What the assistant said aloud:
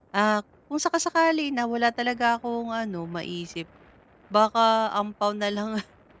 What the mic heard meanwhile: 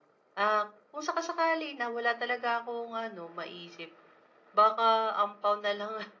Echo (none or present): present